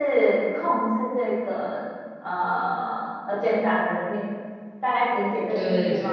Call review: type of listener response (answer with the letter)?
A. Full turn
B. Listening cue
A